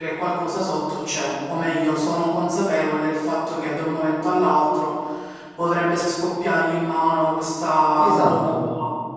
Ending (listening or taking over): listening